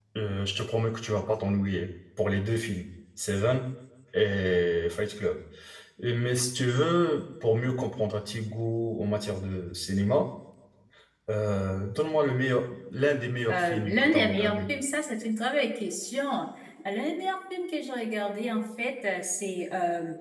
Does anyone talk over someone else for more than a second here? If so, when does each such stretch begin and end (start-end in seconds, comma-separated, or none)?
13.5-14.7